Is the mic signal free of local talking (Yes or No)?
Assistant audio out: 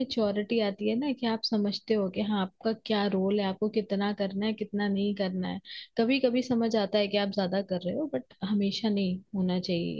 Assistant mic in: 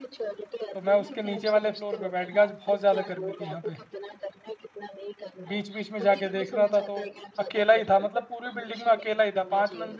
No